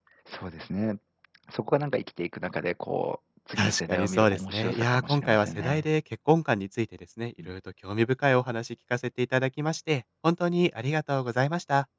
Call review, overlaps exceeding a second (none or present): present